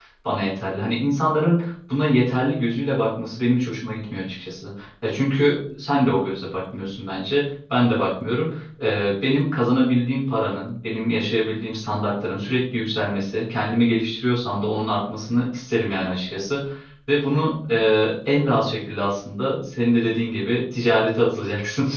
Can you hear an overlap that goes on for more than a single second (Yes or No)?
No